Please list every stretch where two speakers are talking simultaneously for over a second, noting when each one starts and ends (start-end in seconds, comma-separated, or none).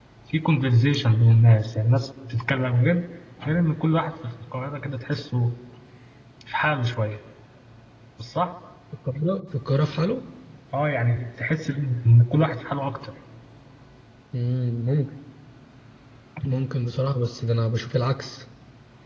none